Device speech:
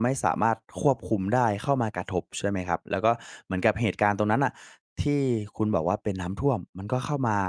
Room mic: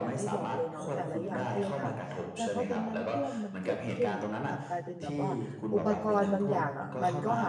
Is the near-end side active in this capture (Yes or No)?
Yes